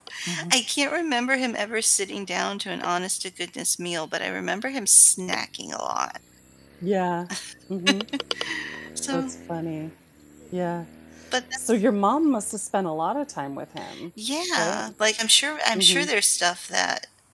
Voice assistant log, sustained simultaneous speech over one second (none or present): none